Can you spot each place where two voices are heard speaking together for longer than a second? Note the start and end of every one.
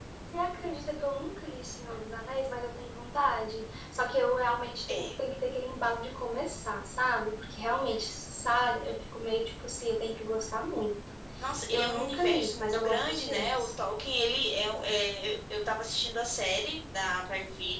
11.7-13.7

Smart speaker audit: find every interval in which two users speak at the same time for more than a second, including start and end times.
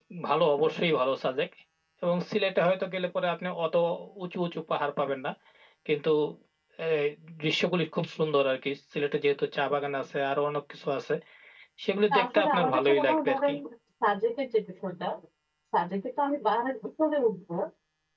12.1-13.5

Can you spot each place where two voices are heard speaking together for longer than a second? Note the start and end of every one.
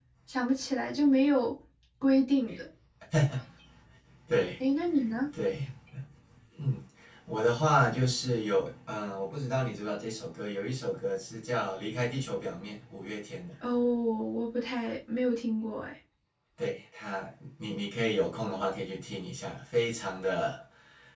none

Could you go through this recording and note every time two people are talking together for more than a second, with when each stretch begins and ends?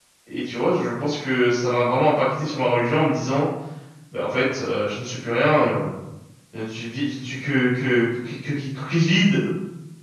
none

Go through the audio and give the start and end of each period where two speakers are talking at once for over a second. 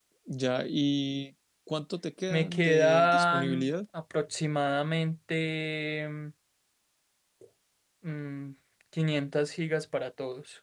2.3-3.7

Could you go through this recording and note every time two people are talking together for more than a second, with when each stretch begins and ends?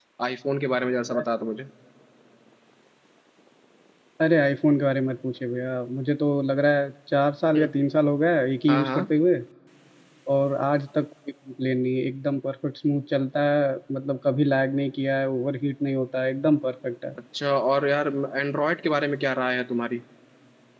none

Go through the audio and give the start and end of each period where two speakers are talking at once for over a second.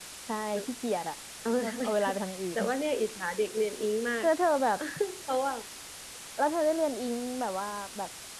none

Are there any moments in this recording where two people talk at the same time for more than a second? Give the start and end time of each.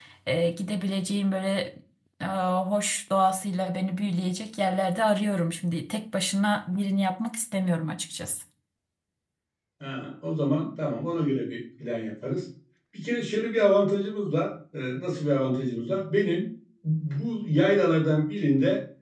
none

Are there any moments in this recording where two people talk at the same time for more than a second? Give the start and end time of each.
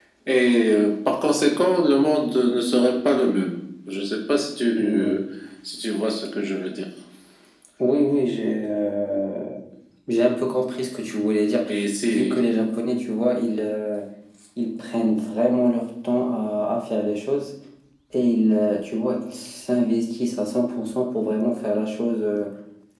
none

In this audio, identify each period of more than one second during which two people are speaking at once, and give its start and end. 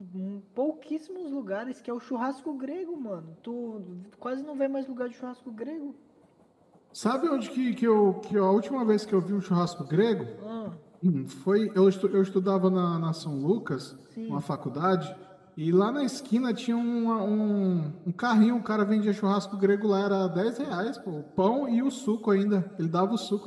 none

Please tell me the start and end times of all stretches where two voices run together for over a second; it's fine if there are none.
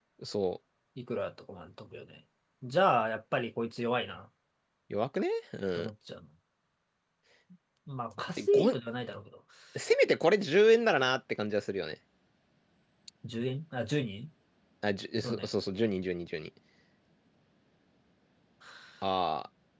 none

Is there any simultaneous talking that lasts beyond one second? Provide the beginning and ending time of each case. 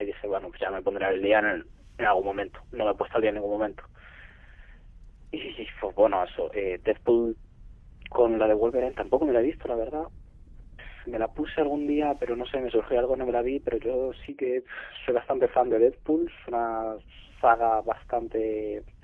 none

